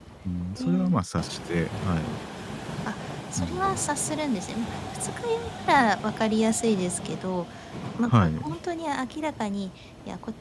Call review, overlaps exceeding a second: none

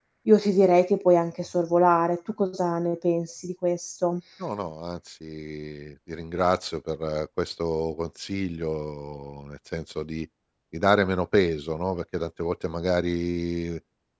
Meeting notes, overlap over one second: none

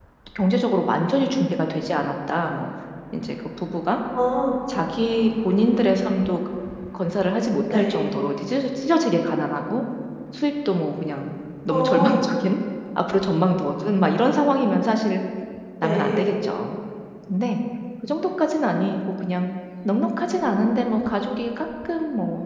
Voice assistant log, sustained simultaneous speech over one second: none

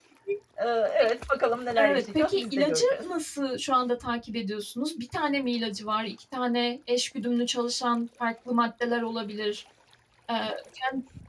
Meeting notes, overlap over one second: present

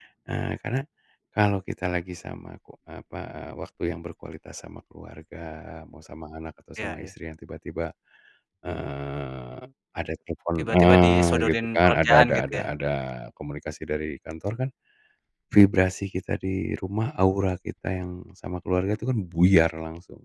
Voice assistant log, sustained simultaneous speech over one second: present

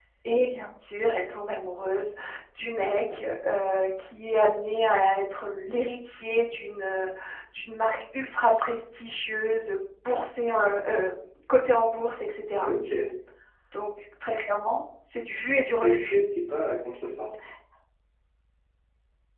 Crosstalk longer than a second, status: none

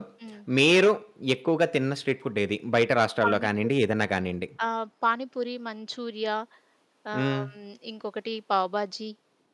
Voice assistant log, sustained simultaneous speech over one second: none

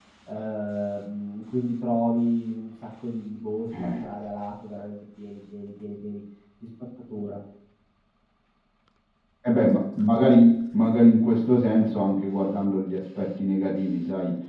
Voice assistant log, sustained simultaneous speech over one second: none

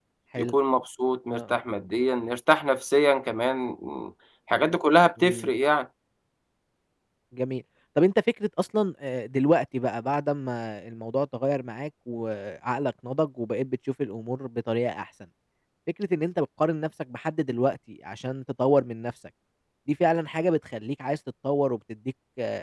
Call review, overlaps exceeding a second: none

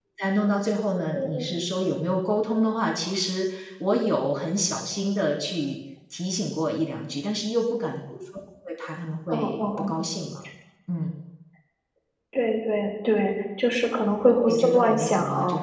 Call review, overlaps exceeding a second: present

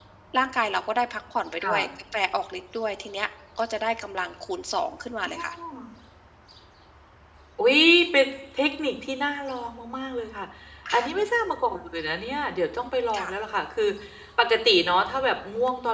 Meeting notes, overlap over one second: none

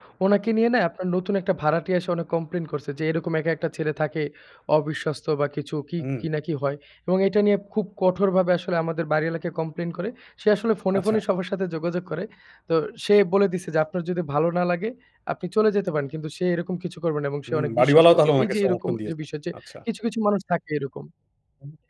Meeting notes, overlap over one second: present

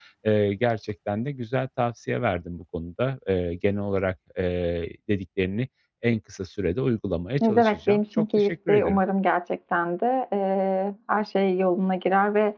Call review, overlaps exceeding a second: present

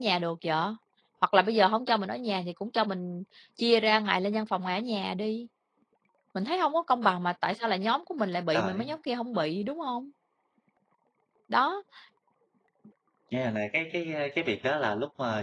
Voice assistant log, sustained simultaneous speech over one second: none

